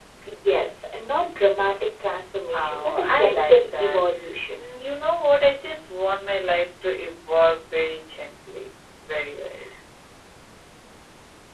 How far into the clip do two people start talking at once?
2.4 s

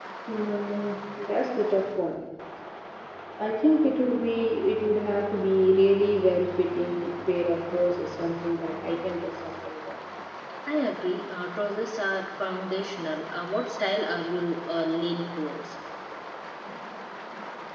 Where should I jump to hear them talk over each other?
none

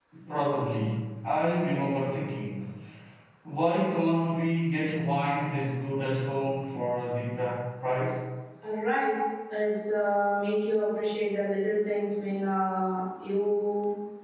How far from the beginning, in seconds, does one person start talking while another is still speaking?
none

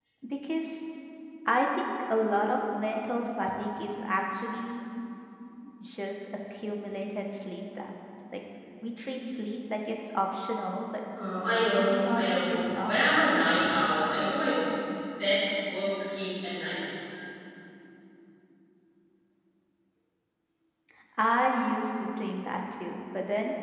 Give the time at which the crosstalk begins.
11.7 s

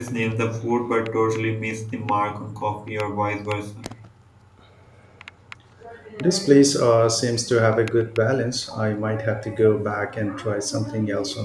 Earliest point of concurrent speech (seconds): none

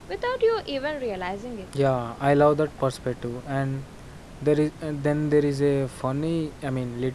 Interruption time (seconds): none

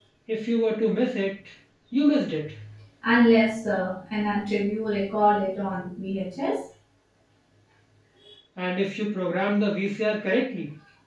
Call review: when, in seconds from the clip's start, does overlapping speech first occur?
none

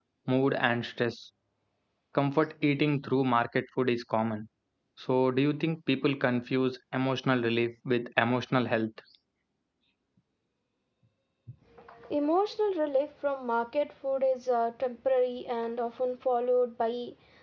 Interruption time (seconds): none

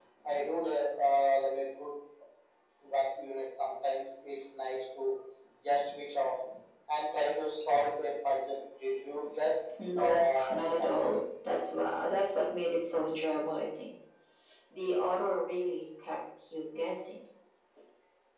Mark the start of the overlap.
9.8 s

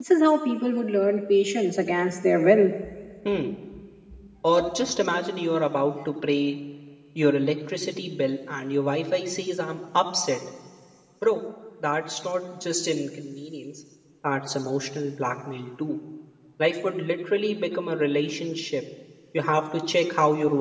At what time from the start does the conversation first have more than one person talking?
none

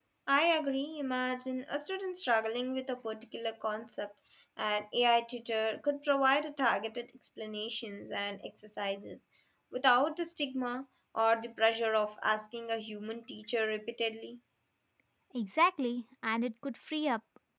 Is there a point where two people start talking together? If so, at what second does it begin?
none

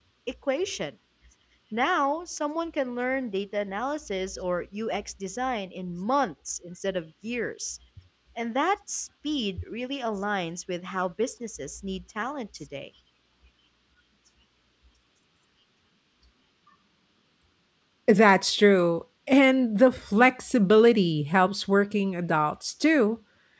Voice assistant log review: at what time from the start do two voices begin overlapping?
none

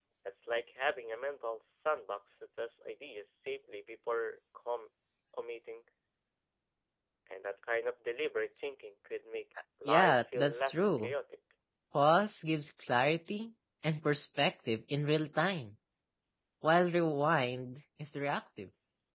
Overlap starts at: 9.8 s

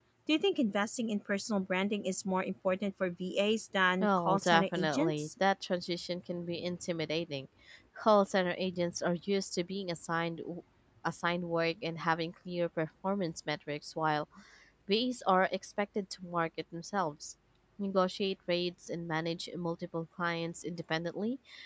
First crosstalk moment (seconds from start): 4.0 s

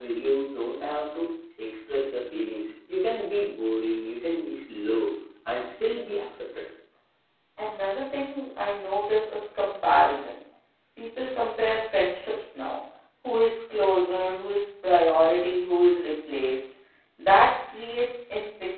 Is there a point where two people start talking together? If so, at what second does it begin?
none

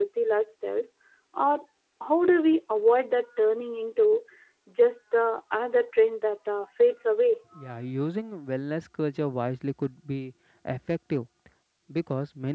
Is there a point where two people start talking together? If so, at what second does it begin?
none

